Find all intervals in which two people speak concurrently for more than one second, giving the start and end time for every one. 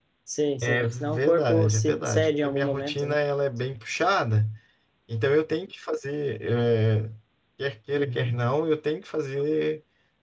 0.6-3.2

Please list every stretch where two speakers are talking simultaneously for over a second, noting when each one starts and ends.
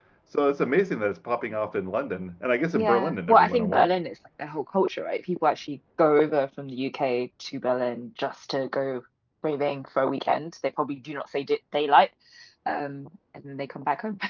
2.7-3.9

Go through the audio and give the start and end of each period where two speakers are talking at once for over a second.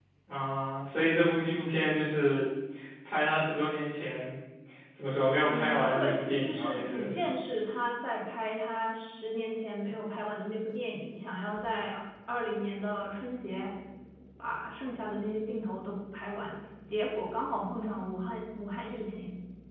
5.4-7.1

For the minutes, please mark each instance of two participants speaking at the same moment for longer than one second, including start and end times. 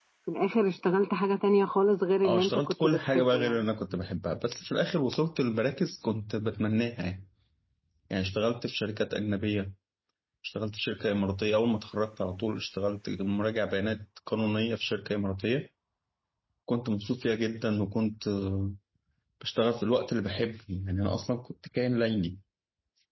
2.2-3.6

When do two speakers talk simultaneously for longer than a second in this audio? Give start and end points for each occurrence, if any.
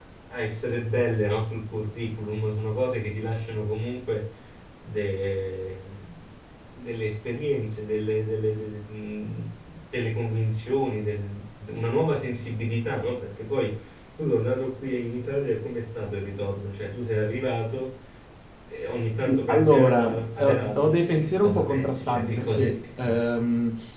19.5-22.9

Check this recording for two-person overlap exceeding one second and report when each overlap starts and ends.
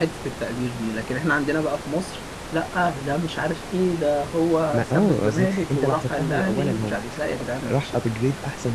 4.7-7.9

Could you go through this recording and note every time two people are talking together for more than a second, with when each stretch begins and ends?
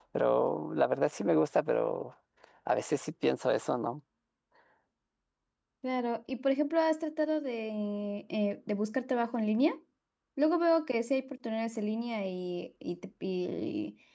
none

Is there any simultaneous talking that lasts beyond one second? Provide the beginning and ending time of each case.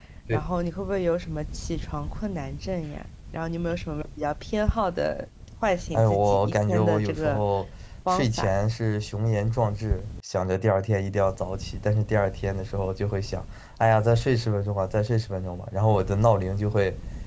5.9-7.4

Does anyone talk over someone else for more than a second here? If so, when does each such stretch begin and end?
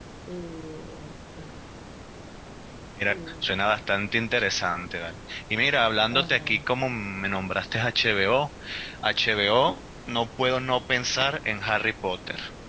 none

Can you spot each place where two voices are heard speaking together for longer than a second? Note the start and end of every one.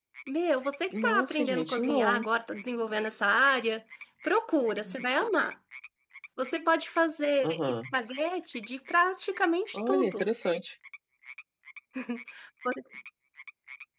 0.9-2.2

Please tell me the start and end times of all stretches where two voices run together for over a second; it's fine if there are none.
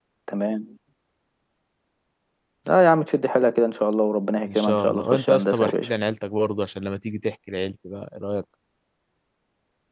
4.5-5.9

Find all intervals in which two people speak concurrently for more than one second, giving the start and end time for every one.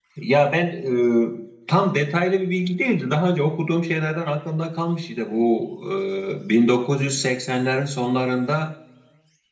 none

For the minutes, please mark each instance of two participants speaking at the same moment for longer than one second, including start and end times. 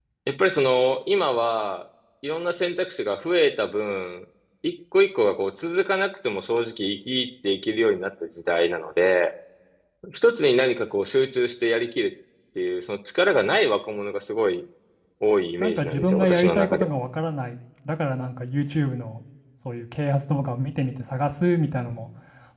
15.6-16.9

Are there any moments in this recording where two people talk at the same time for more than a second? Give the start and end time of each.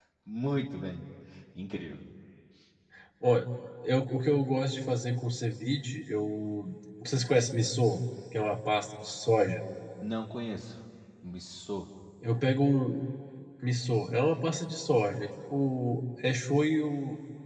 none

